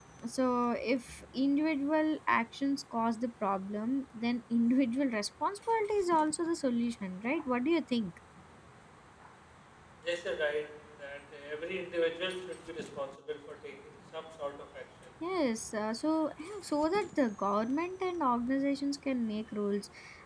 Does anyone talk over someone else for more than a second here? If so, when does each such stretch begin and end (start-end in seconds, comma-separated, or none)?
none